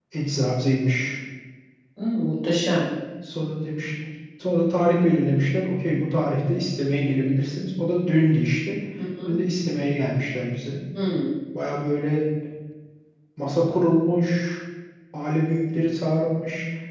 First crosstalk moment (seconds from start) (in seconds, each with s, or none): none